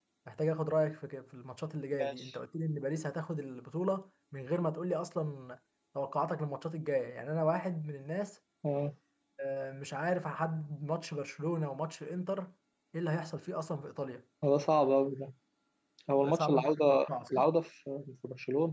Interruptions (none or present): present